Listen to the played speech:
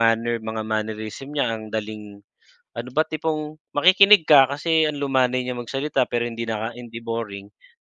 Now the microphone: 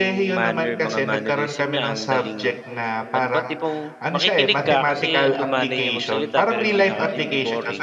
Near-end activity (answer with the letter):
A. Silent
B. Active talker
B